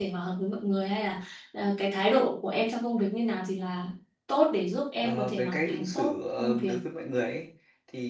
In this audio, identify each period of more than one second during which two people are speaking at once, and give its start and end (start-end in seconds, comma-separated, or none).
5.0-6.7